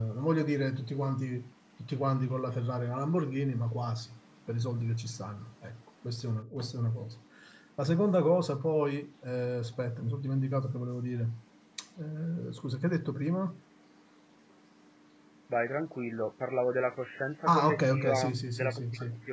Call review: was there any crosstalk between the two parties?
Yes, from 17.5 s

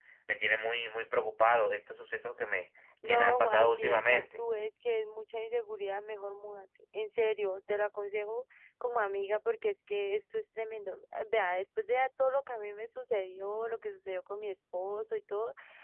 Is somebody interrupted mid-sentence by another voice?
Yes, from 3.0 s

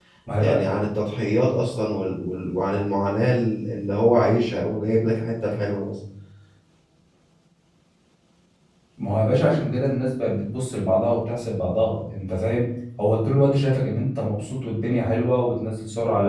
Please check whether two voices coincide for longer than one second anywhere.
No

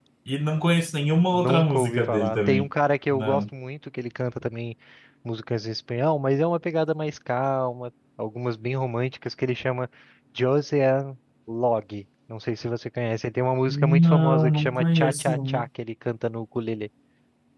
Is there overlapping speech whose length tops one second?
Yes, from 1.0 s

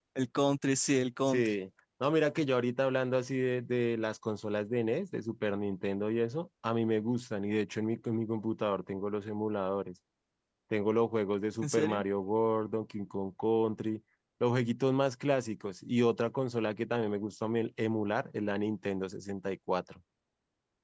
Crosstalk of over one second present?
No

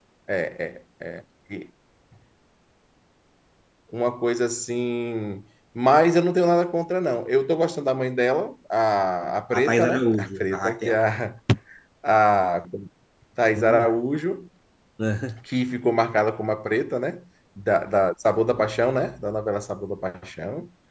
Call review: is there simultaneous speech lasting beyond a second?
Yes, from 9.5 s

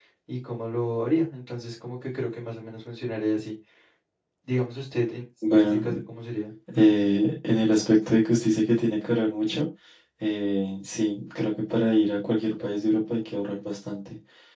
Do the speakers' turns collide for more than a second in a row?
No

